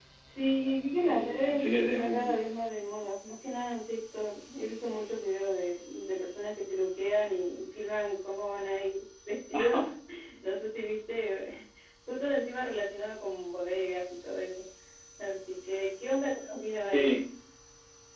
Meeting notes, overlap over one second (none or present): present